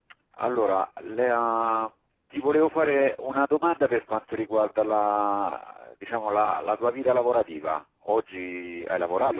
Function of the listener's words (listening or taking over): taking over